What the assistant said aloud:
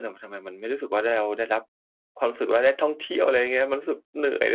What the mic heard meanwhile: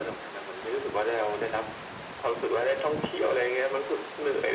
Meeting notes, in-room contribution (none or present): none